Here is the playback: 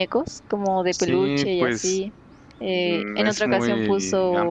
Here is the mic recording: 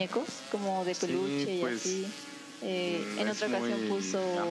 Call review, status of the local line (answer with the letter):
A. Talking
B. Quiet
B